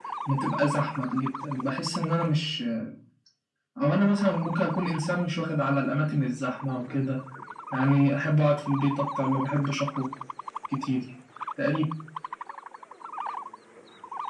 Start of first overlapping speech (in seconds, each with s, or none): none